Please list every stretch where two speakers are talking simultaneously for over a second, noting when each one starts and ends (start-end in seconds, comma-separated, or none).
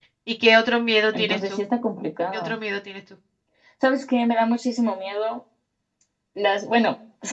none